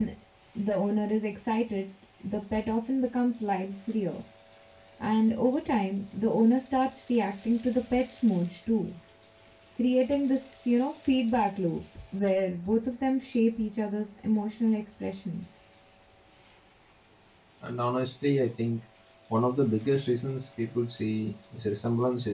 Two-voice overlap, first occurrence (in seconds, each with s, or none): none